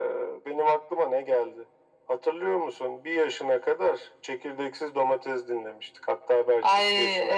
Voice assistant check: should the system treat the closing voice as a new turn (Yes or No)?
Yes